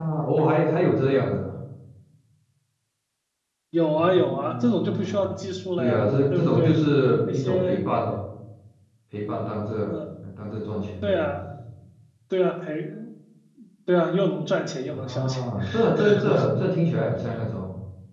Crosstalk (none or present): present